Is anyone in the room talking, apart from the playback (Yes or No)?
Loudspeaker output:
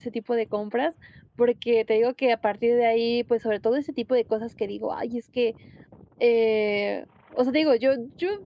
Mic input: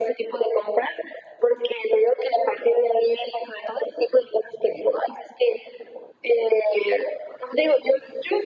No